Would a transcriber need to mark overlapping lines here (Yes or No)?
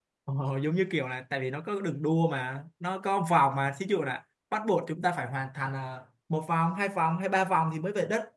No